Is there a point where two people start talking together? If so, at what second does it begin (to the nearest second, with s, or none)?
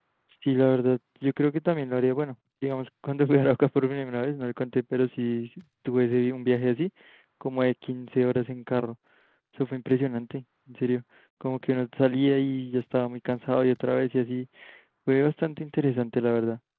none